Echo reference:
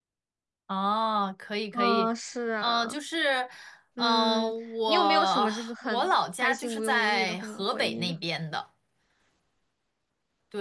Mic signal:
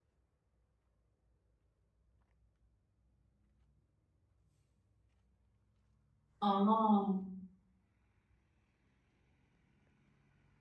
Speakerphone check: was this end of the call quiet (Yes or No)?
No